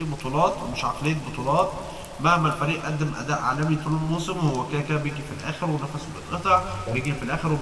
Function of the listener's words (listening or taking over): listening